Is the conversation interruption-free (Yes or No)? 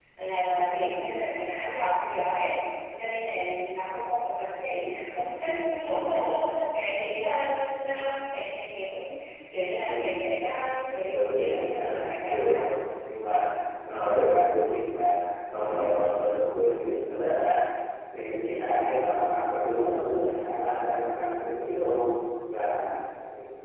No